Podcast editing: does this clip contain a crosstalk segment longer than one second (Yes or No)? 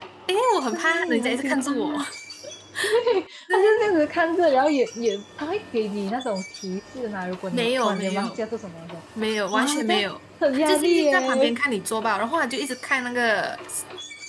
Yes